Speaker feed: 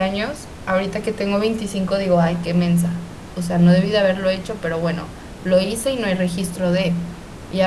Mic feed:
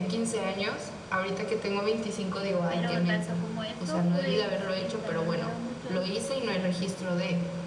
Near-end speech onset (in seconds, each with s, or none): 2.7 s